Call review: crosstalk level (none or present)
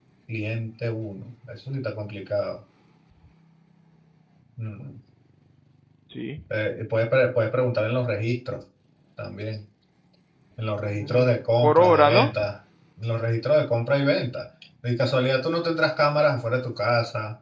present